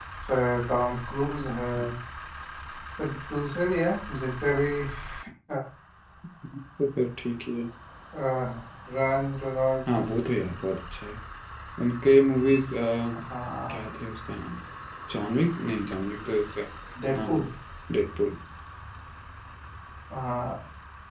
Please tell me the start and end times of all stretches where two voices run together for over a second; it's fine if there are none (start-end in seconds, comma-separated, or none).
none